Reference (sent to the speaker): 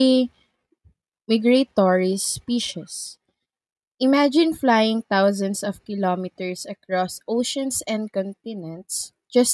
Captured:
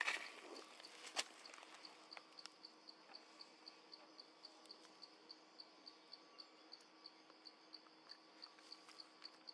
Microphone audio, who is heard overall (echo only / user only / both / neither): neither